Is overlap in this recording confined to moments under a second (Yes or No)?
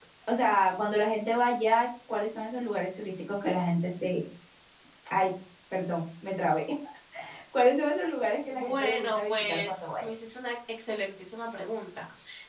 No